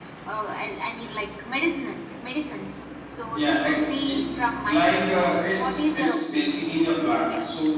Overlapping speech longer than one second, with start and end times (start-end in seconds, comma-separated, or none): 4.6-6.6